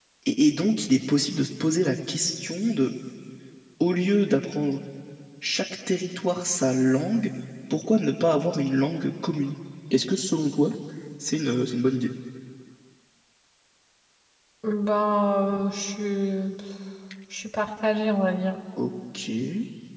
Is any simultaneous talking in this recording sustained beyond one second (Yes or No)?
No